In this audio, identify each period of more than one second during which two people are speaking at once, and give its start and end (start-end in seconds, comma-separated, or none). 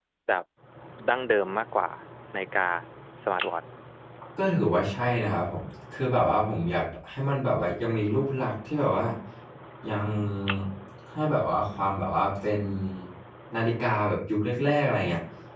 none